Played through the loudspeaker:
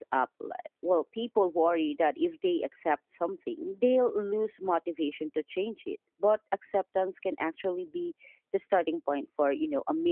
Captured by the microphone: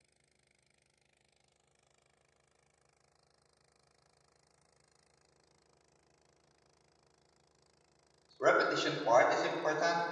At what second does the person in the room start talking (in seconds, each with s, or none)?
8.4 s